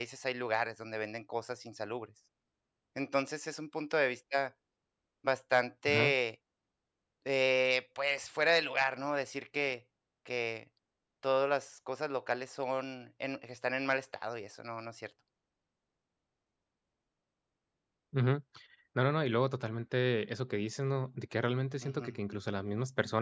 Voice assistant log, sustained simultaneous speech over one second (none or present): none